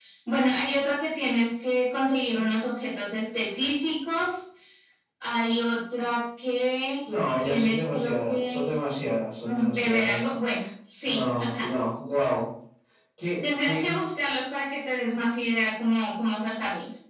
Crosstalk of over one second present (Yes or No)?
Yes